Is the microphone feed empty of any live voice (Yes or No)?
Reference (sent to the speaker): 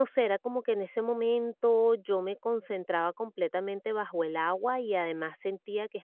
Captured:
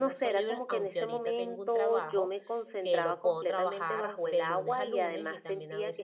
No